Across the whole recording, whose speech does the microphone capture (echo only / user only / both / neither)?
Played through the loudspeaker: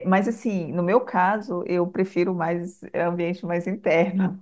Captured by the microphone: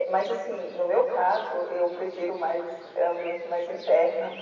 echo only